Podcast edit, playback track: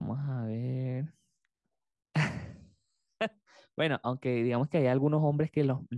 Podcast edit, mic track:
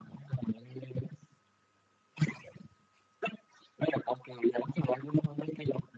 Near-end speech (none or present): none